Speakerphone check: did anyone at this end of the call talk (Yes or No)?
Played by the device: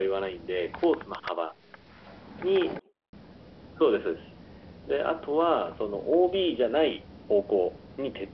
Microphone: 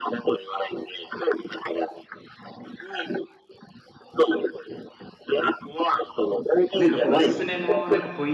Yes